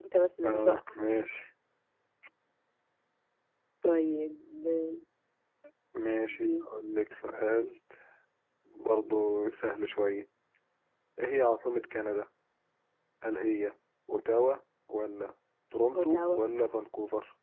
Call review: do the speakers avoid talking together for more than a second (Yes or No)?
Yes